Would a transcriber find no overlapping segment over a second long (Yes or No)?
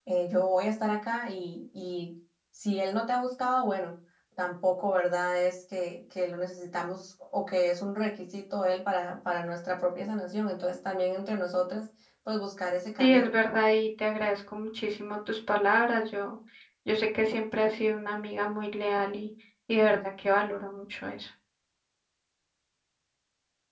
Yes